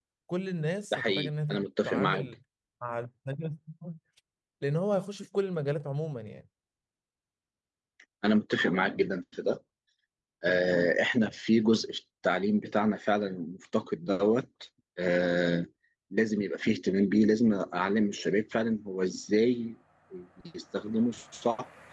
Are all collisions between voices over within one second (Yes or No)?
No